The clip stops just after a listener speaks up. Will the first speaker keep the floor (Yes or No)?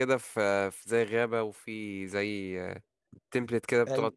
No